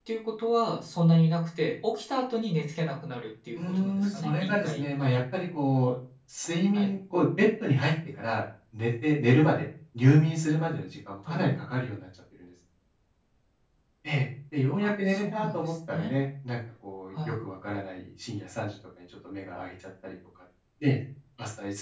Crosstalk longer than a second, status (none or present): present